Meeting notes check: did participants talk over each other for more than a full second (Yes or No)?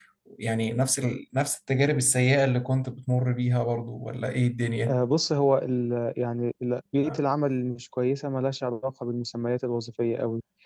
No